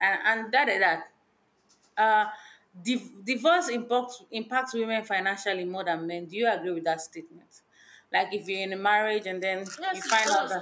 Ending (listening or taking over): taking over